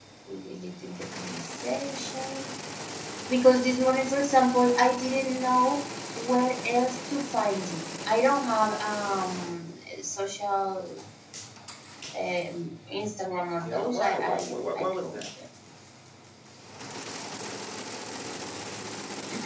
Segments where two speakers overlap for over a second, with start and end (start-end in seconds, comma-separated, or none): 13.6-15.2